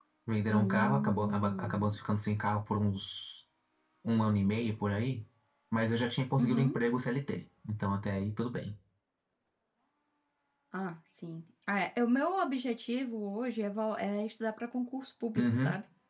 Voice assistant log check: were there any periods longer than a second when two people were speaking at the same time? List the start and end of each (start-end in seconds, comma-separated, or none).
0.5-2.0